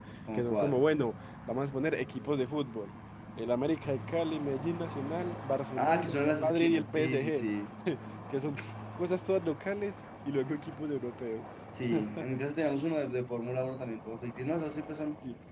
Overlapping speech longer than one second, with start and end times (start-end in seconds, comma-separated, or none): 5.8-7.5